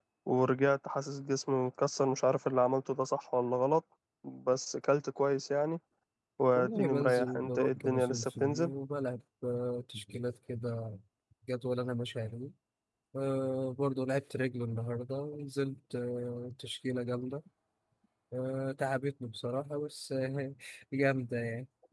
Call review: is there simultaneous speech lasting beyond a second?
Yes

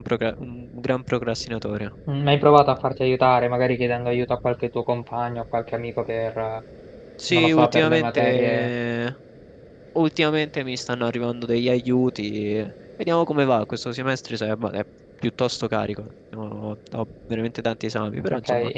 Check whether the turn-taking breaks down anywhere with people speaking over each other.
Yes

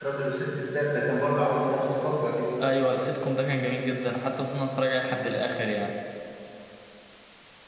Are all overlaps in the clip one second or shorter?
Yes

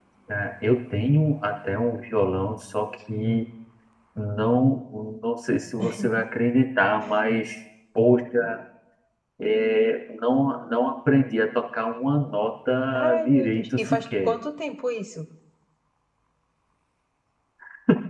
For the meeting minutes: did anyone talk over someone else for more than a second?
Yes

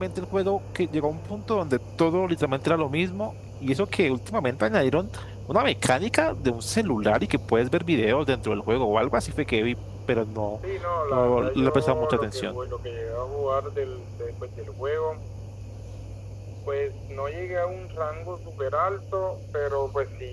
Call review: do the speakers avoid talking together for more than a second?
No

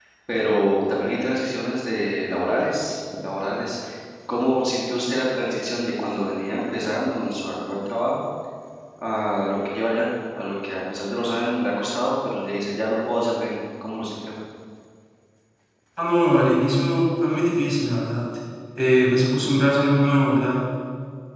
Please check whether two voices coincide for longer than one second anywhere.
No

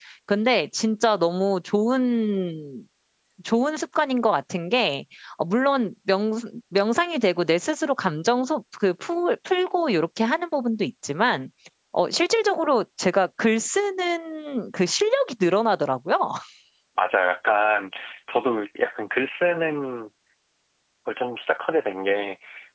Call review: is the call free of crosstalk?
Yes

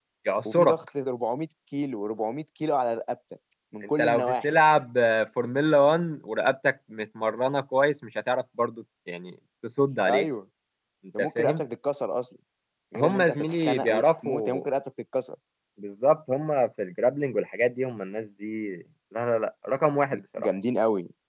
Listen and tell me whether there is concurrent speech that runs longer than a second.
Yes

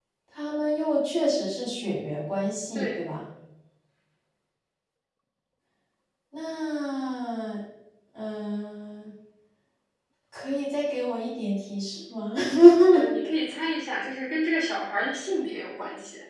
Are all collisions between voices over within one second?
Yes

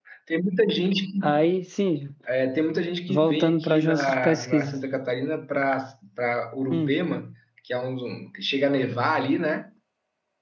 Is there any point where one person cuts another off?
Yes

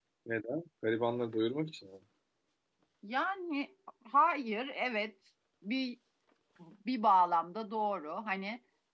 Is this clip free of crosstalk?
Yes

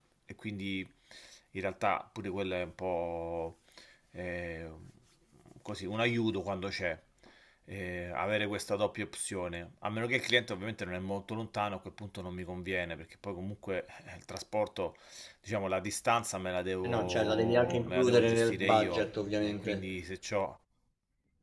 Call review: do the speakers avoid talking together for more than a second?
No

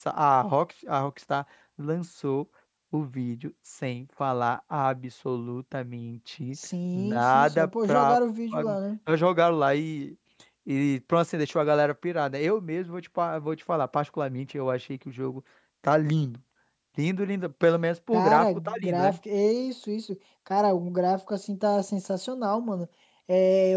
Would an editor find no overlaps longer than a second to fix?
No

